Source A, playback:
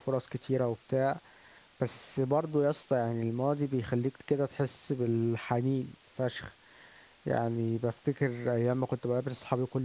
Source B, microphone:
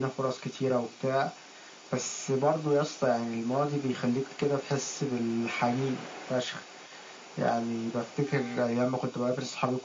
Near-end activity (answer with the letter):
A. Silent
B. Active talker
A